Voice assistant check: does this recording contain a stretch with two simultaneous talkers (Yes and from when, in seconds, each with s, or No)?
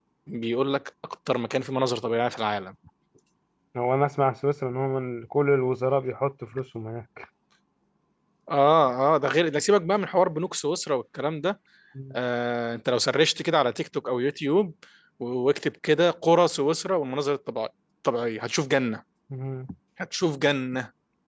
No